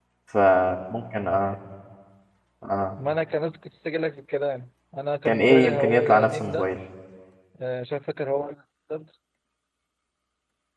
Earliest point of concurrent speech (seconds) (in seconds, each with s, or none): 5.2 s